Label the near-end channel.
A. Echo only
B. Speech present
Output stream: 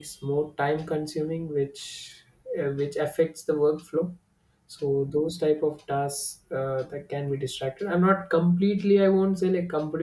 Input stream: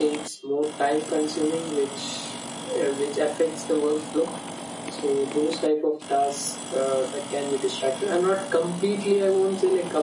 A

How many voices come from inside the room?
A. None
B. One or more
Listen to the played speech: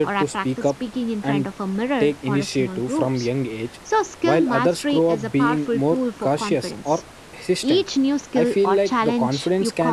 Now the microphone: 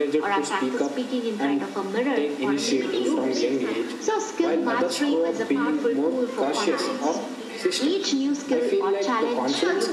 B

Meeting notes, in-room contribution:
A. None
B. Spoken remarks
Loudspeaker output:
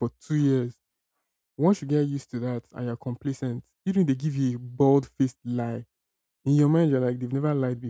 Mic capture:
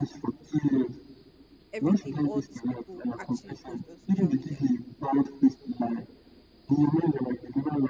B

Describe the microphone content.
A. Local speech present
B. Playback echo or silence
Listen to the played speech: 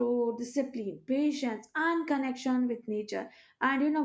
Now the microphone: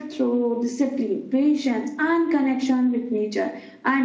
B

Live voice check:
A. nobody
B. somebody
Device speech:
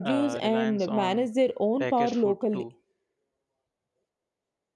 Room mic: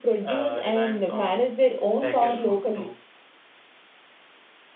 A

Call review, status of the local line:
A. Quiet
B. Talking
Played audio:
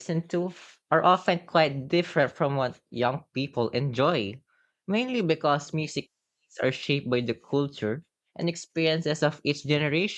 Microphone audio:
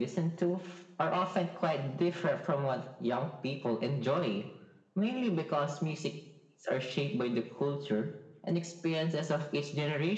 A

